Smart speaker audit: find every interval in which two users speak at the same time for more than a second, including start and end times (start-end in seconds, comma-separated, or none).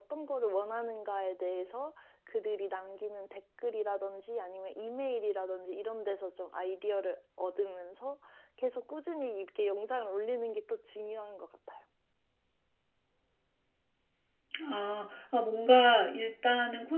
none